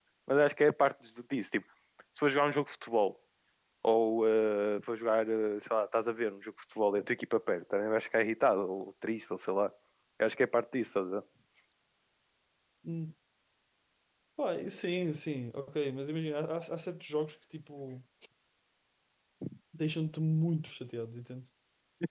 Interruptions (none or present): none